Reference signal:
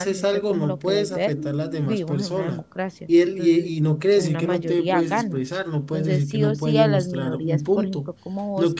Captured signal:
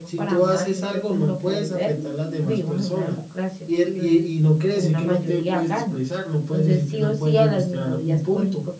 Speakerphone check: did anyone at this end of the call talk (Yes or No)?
No